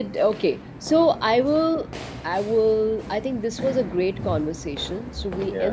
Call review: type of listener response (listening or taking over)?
listening